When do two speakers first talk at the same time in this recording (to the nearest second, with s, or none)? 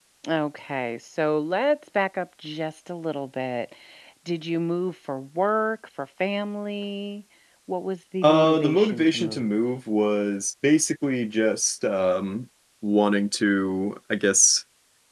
8 s